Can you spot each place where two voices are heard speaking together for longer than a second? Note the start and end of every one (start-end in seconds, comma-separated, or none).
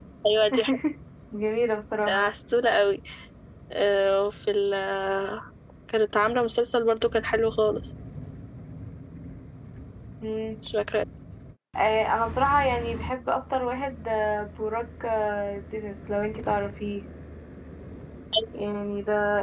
none